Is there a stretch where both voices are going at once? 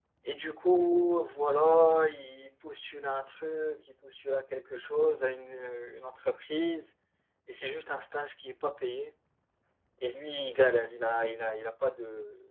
No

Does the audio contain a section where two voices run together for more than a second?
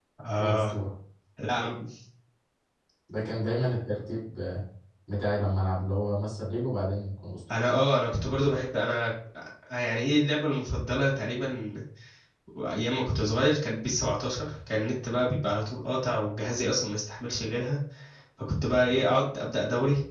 No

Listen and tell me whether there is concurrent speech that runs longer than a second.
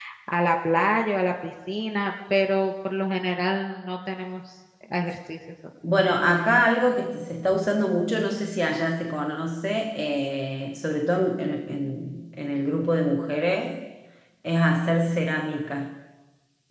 No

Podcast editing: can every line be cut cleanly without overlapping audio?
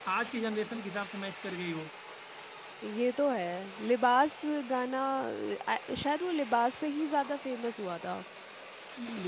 Yes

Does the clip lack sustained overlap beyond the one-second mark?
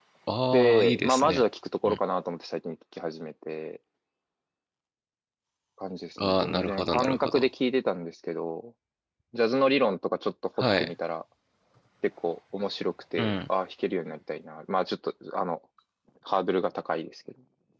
No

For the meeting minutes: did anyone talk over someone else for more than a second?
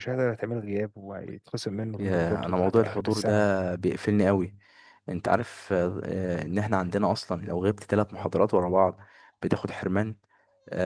Yes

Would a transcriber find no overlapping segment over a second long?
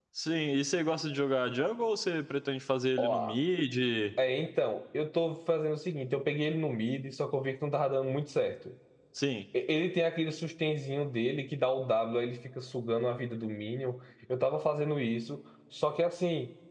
Yes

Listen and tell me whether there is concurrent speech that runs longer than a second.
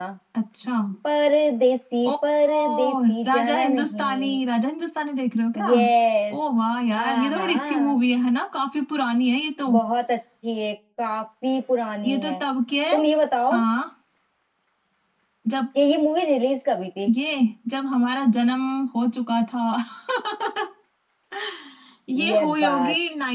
Yes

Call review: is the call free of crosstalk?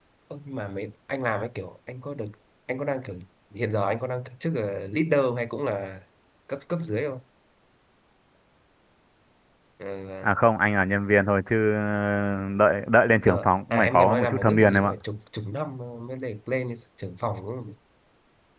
No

